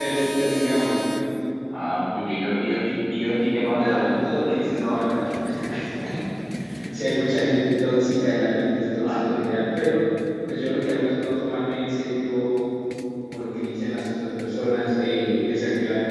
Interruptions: present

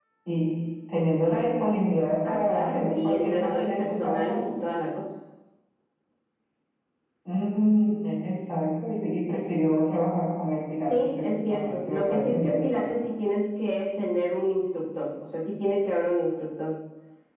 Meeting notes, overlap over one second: present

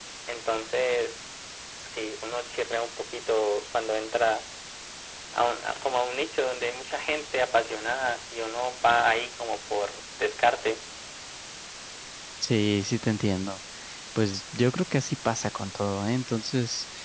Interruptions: none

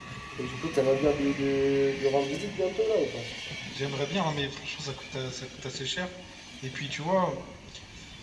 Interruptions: none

